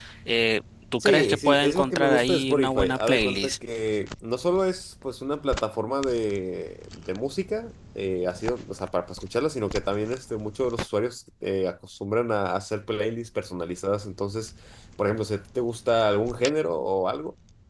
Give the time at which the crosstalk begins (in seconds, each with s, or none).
1.0 s